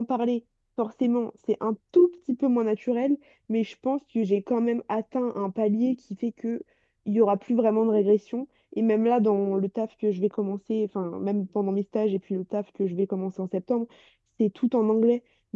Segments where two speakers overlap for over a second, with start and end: none

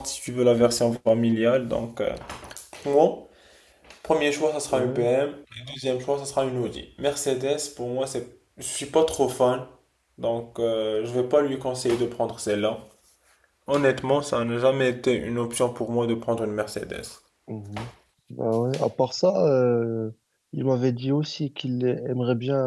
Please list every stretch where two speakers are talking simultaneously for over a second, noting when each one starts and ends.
none

